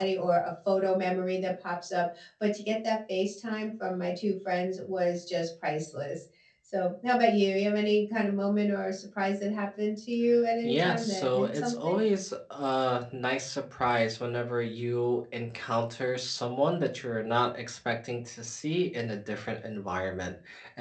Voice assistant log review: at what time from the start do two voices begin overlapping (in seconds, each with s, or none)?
10.6 s